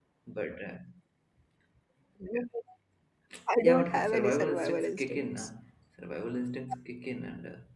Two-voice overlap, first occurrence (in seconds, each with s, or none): 3.6 s